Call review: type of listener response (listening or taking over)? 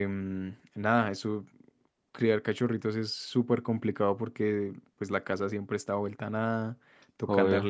listening